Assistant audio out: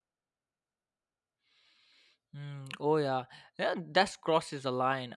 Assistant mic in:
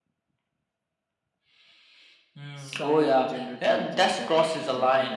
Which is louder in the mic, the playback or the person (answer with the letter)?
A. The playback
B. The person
A